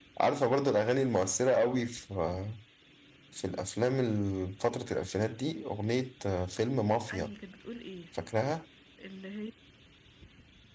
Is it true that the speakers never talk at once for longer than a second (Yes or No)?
Yes